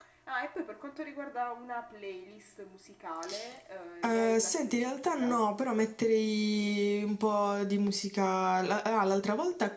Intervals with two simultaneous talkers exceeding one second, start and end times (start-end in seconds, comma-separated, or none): 4.0-5.3